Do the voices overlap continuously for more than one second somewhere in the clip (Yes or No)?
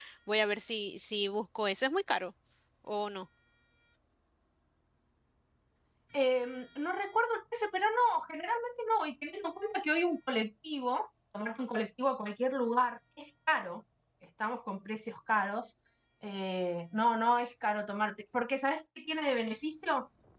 No